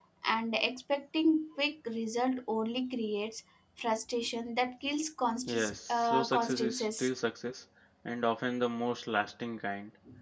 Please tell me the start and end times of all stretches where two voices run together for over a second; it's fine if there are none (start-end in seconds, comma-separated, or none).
5.5-7.1